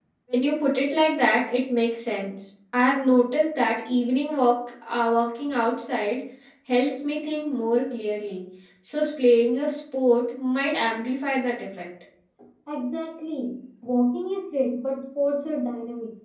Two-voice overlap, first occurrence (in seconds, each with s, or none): none